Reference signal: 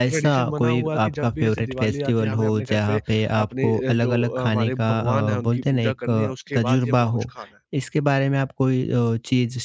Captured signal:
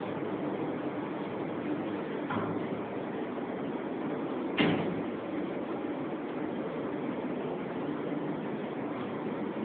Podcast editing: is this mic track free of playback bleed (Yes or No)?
Yes